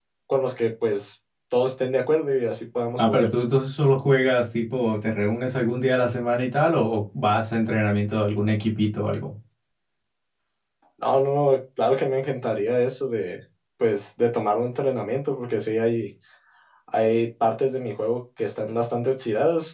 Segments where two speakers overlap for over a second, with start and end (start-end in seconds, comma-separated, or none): none